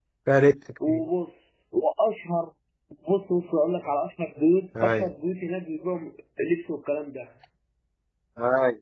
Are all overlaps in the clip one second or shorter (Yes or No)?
Yes